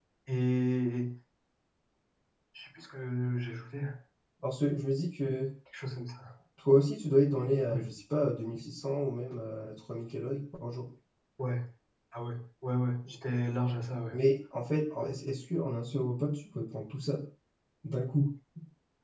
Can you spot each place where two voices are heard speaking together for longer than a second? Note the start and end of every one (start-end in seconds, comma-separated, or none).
none